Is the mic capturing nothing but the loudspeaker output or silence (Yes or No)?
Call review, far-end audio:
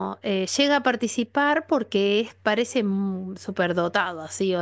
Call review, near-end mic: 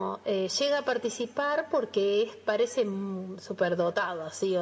Yes